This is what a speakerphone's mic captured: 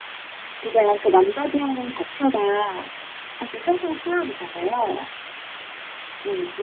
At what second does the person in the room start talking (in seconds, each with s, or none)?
none